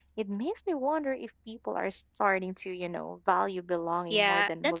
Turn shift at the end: Yes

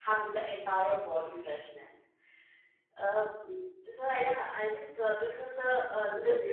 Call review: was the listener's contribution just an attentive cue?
Yes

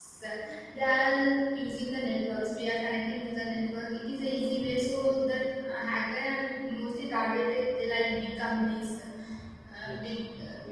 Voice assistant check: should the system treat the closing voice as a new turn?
Yes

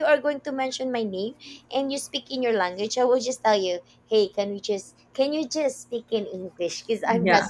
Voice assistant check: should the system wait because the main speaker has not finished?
No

